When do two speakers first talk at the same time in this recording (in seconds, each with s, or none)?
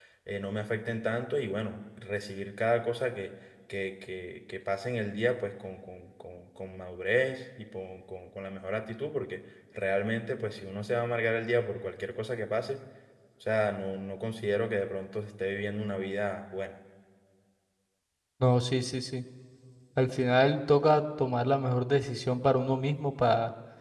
none